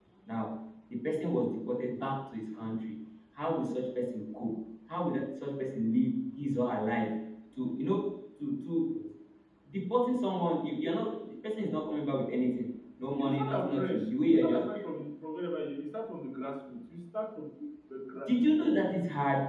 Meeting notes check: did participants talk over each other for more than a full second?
Yes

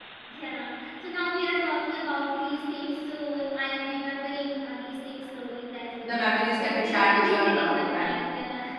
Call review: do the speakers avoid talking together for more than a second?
No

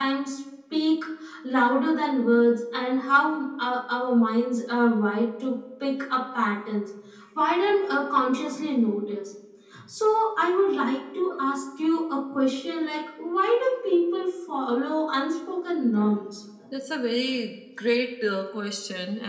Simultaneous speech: No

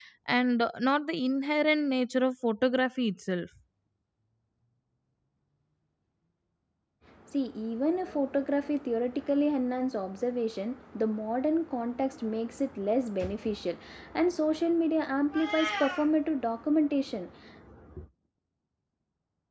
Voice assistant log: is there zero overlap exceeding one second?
Yes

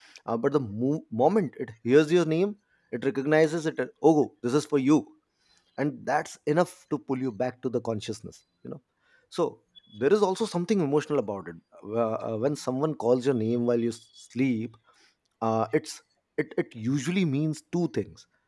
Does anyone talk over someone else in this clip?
No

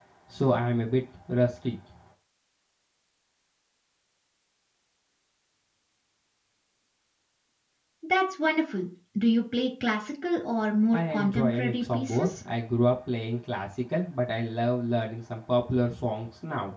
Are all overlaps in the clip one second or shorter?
No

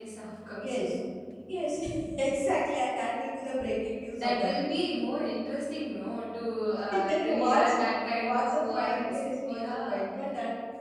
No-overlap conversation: No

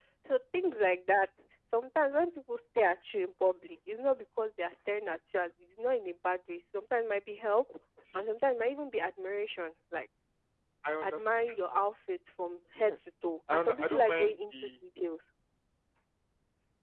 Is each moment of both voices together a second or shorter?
No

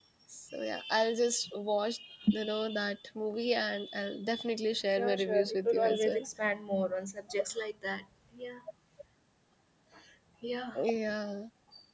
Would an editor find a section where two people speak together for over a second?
Yes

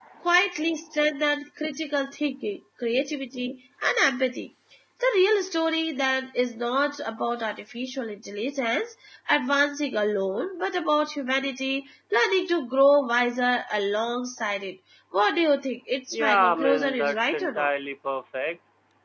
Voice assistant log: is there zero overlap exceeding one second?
No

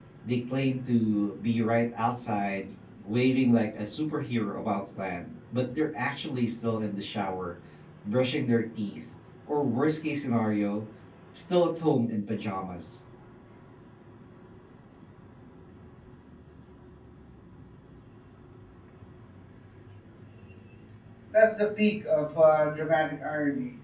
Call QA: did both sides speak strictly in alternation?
Yes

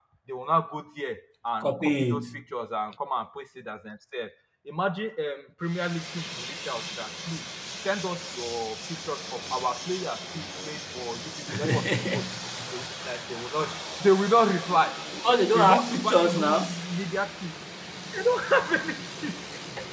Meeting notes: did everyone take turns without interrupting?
No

